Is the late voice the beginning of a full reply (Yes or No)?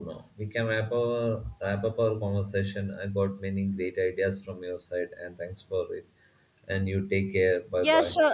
Yes